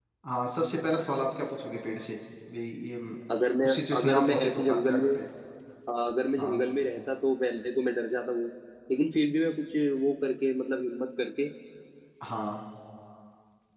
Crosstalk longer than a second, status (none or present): present